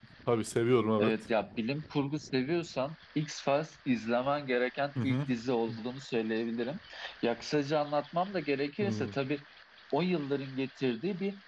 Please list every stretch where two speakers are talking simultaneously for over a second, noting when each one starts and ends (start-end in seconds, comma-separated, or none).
none